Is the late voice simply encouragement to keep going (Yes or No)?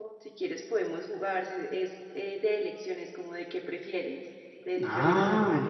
No